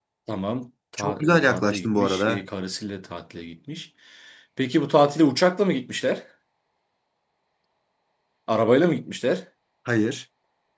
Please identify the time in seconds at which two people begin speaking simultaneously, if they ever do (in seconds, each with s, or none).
1.0 s